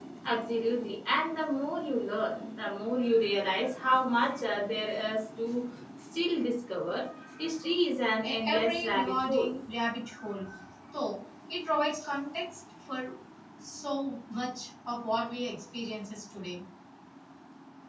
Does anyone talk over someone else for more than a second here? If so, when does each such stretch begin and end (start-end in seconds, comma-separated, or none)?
8.2-9.5